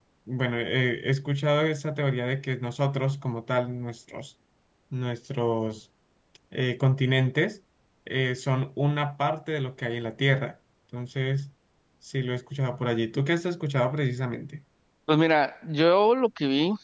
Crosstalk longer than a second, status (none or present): none